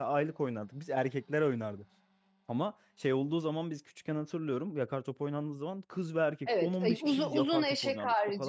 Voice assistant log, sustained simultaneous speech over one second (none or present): present